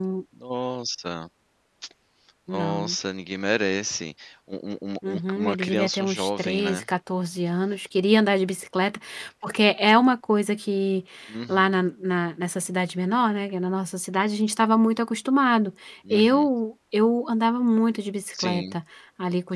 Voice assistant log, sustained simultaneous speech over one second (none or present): present